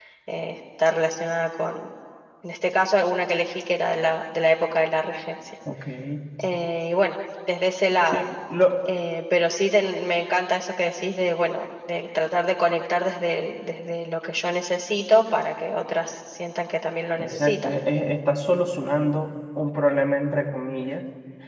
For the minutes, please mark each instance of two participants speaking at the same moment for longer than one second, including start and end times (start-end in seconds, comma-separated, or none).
none